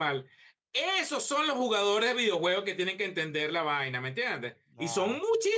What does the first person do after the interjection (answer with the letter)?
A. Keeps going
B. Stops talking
A